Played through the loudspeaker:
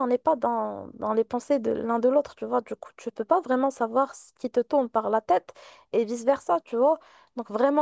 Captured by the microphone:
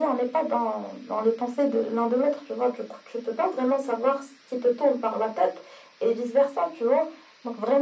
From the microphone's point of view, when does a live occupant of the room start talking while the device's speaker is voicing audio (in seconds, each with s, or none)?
none